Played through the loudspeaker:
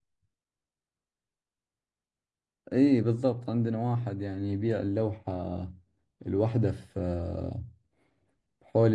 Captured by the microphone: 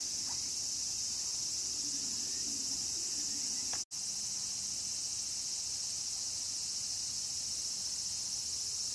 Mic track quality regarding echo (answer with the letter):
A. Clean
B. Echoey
A